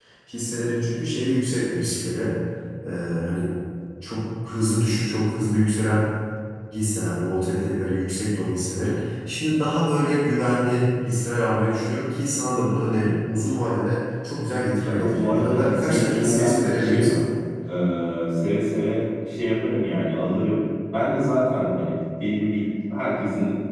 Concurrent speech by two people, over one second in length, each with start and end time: 14.8-17.1

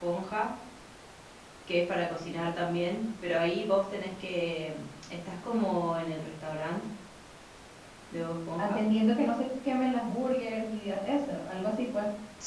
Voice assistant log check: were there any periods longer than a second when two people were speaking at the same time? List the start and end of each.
none

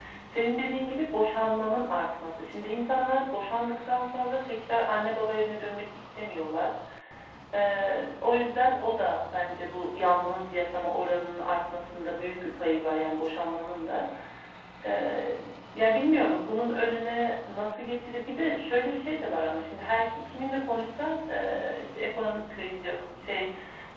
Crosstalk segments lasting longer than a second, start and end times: none

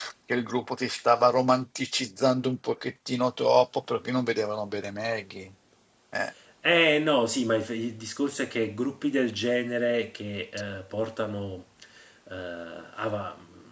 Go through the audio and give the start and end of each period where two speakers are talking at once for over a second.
none

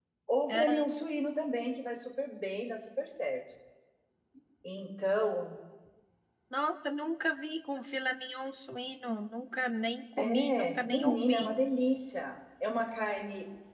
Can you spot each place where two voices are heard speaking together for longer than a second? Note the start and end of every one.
10.2-11.4

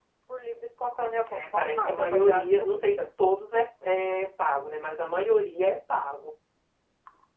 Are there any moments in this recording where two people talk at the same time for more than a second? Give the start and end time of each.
1.3-3.0

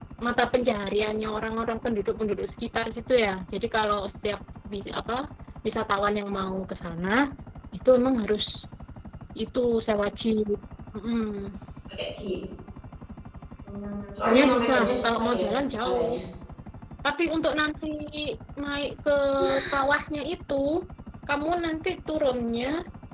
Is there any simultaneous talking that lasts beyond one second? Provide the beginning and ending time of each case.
14.2-15.4

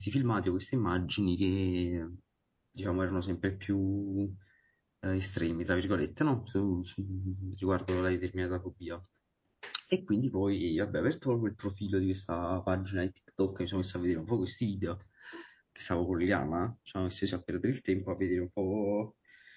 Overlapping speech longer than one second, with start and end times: none

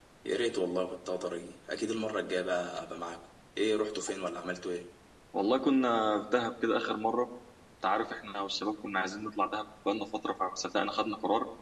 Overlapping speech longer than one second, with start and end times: none

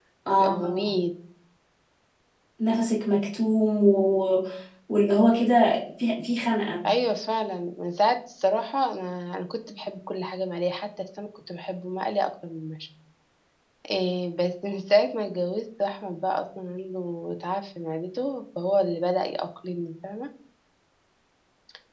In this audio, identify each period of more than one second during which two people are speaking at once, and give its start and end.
none

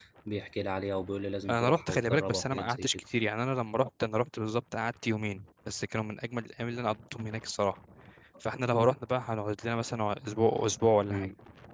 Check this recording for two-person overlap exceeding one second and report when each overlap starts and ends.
1.5-2.9

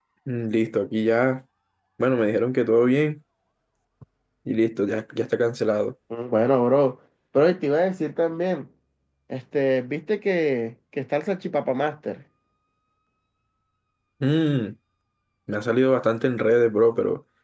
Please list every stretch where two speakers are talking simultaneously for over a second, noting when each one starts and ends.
none

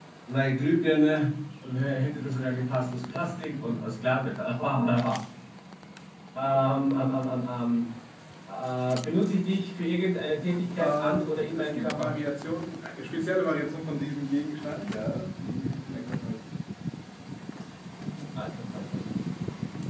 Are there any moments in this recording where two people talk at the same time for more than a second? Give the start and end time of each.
10.8-12.2

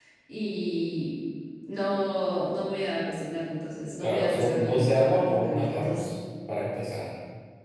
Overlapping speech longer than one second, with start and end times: 4.0-6.0

